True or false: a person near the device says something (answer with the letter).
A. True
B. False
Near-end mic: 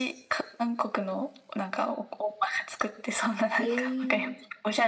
A